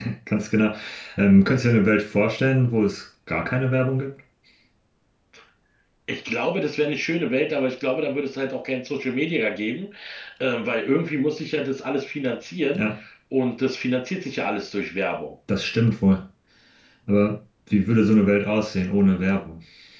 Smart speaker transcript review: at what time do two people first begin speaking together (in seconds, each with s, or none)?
none